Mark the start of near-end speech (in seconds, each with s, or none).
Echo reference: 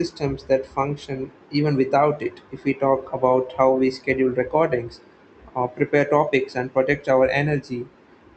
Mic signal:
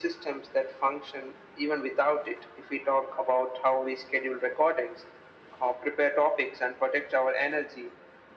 none